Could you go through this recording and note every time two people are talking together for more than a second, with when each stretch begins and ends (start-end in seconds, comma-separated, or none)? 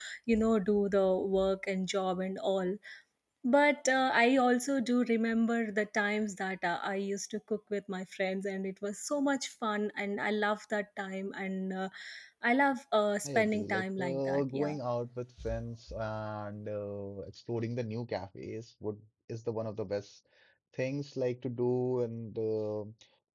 13.2-14.8